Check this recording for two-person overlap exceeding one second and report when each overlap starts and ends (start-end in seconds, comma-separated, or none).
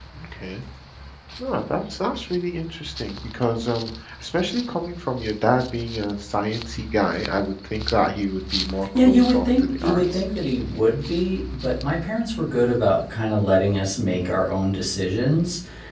9.0-10.3